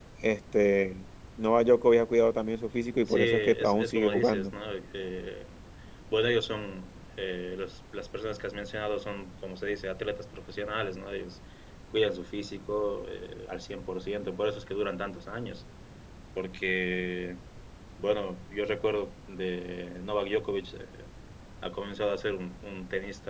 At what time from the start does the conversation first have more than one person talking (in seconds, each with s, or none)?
3.1 s